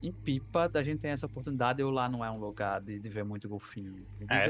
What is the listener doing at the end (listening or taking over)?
taking over